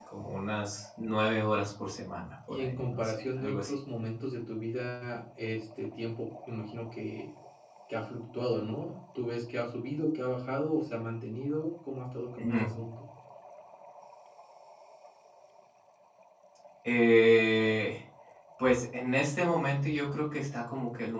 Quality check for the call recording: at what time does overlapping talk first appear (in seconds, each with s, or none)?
2.5 s